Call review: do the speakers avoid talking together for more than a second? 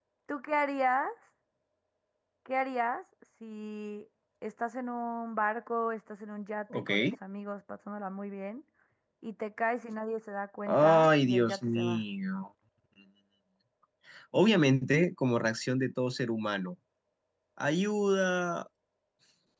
No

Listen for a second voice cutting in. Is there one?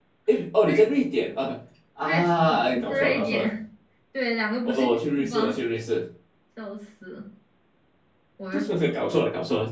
Yes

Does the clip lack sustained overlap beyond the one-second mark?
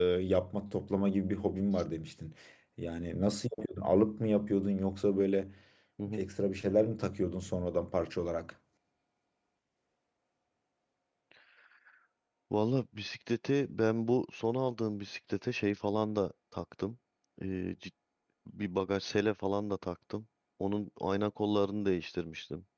Yes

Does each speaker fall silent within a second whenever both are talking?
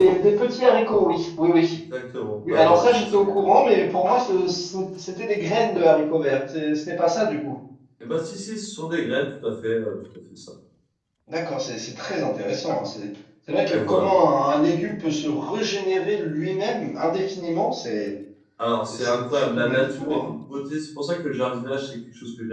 No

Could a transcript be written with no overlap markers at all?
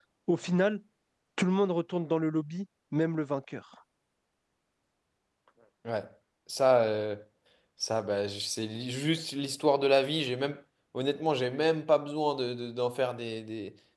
Yes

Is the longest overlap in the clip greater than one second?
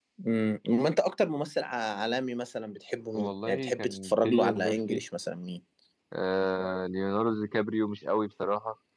Yes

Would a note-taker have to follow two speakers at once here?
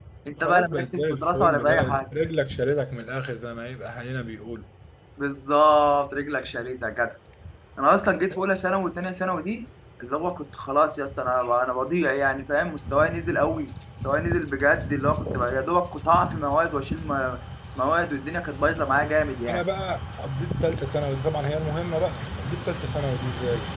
Yes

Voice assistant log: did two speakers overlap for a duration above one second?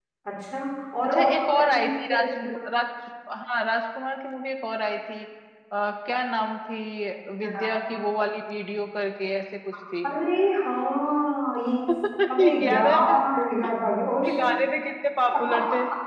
Yes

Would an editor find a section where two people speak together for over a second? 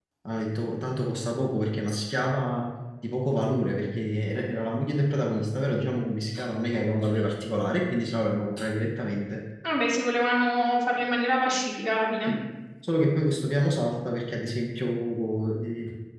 No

